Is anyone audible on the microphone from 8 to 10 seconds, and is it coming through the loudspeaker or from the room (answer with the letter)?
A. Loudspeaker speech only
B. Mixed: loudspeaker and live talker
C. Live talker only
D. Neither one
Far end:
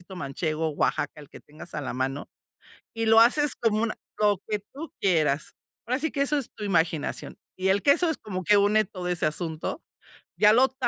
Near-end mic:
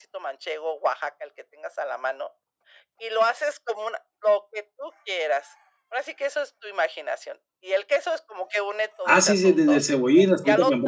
B